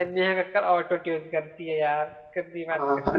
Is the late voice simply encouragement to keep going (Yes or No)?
No